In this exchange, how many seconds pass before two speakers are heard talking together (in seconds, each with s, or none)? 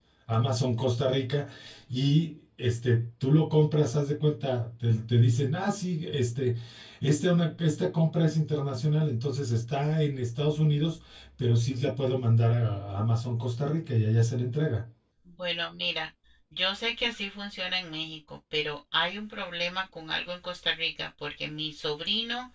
none